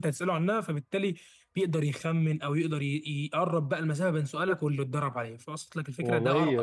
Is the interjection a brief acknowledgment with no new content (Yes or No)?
No